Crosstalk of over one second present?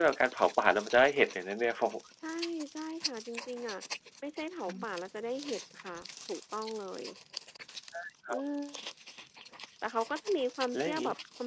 No

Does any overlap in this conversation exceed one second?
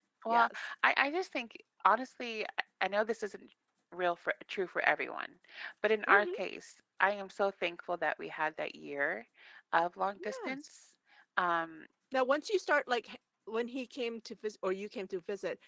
No

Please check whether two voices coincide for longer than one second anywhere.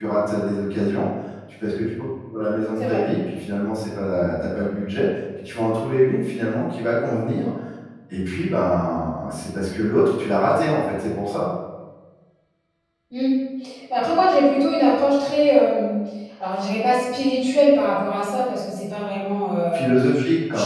No

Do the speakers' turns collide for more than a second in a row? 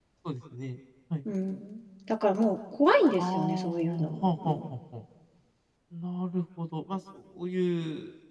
Yes, from 3.2 s

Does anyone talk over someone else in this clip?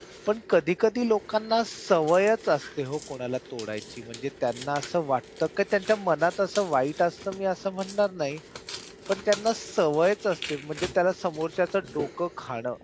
No

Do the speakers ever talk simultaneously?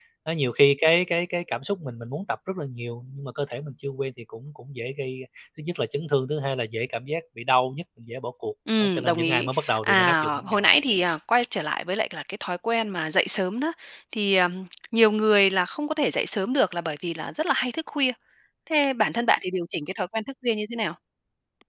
Yes, from 8.7 s

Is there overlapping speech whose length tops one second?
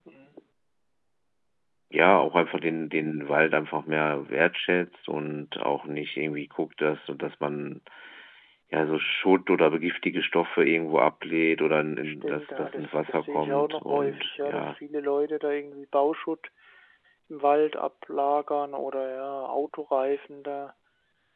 Yes, from 12.0 s

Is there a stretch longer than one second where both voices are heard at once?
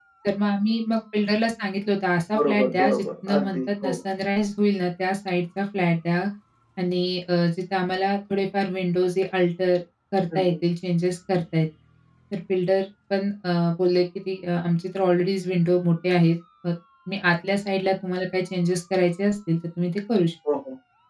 Yes, from 2.3 s

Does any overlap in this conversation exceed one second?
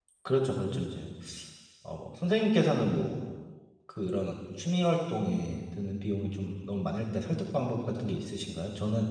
No

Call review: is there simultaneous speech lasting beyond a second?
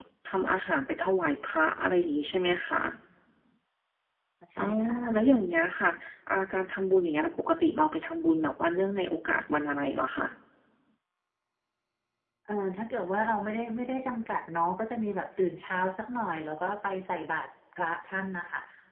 No

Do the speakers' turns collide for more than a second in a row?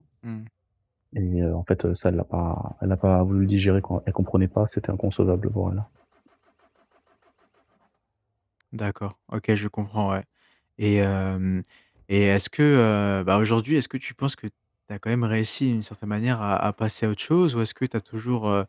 No

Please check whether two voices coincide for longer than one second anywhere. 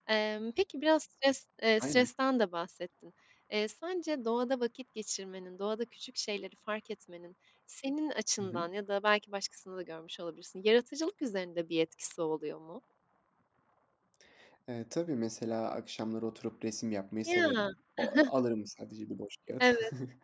No

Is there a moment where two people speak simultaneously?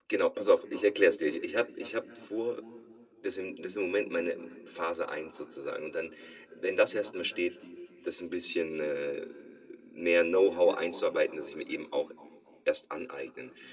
No

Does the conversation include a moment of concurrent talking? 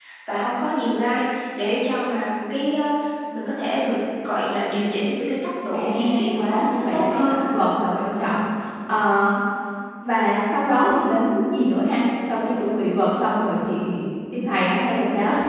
Yes, from 5.7 s

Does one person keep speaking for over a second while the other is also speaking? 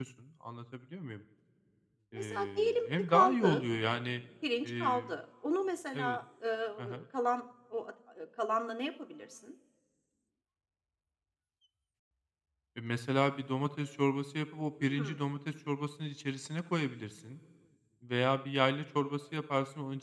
Yes, from 2.1 s

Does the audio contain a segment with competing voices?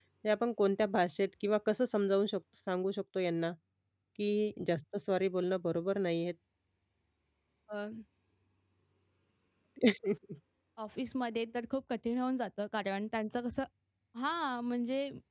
No

